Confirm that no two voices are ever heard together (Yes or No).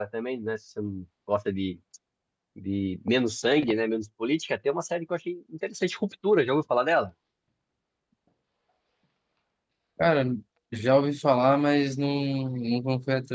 Yes